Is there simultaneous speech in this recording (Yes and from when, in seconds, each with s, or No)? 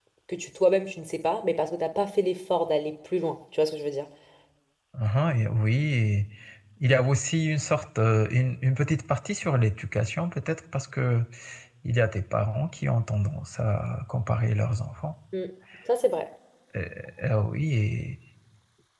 No